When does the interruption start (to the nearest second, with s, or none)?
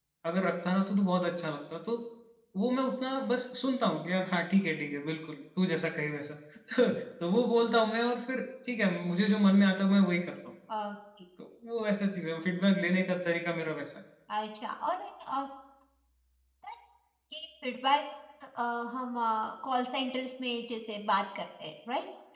none